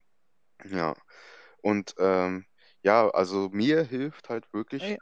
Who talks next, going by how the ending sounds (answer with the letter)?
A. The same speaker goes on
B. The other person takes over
A